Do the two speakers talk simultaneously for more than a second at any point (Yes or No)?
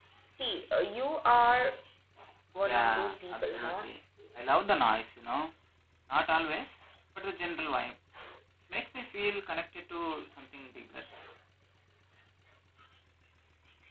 Yes